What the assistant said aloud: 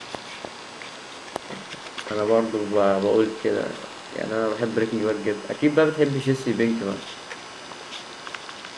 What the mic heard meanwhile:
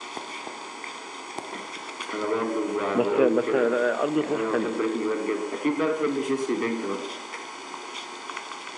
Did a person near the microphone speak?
Yes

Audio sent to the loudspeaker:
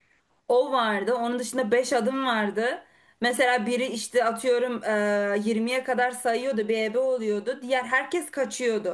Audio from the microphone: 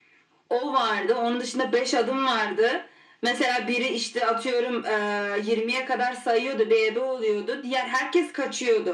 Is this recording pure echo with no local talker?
Yes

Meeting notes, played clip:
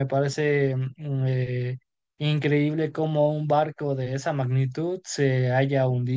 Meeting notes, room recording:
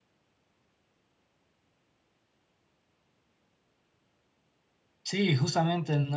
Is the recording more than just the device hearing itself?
Yes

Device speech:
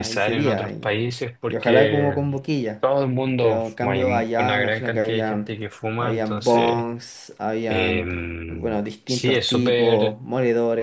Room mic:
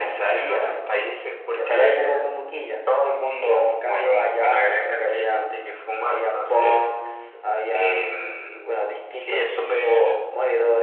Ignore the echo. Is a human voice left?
No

